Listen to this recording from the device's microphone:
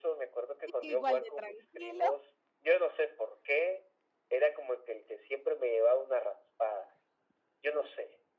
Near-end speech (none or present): present